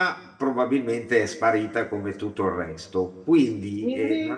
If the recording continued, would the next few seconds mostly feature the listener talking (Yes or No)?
No